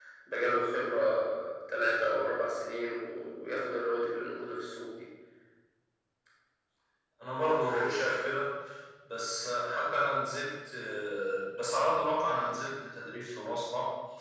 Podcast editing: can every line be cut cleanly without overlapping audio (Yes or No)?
Yes